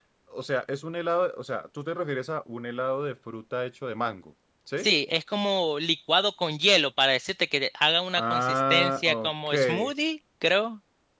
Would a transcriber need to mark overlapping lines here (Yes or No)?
Yes